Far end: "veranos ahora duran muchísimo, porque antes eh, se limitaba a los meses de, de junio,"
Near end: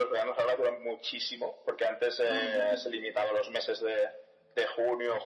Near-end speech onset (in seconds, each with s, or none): 2.2 s